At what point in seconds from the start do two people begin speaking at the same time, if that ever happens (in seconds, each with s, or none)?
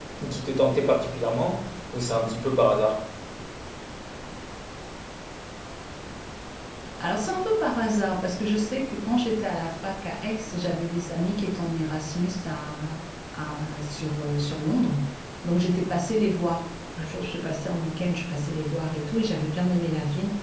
none